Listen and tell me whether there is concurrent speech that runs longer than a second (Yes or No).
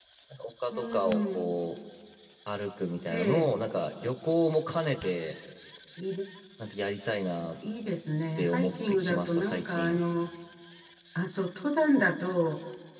Yes